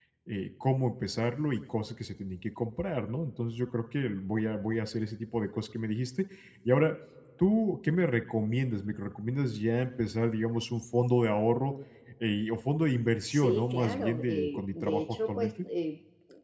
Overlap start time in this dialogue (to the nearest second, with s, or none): 13 s